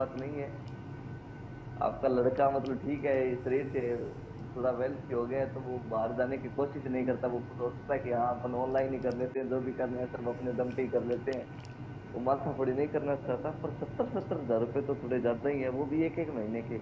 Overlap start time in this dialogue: none

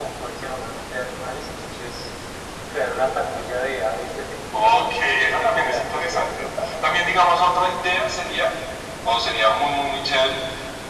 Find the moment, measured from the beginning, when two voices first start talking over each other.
4.5 s

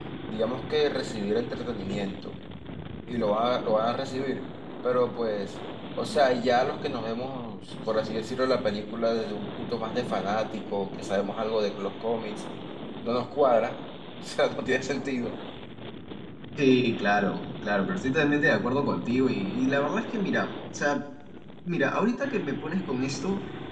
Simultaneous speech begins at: none

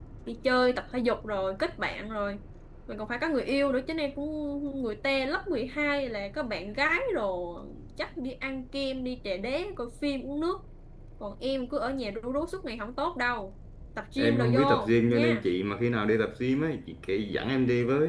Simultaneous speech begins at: 14.2 s

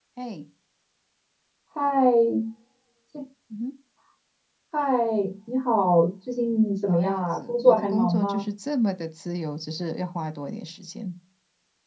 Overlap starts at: 6.8 s

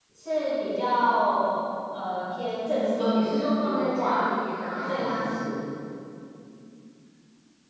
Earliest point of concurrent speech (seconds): 2.9 s

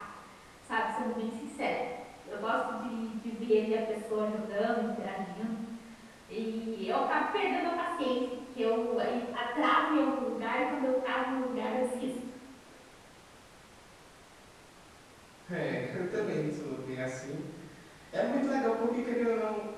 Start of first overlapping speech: none

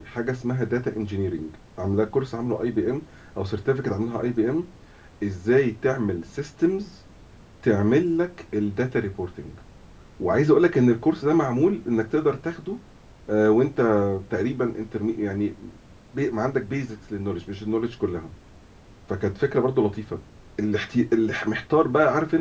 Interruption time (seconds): none

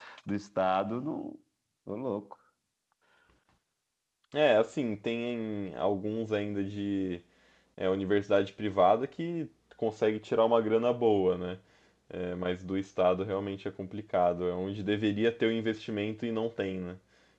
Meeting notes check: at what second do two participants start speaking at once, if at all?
none

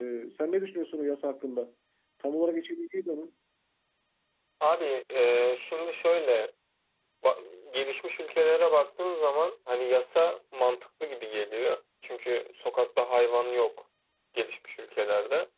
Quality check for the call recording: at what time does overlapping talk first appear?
none

